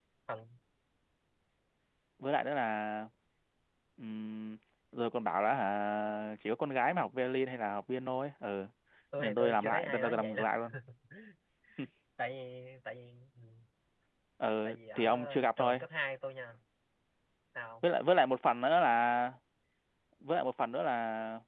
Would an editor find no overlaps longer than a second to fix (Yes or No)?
No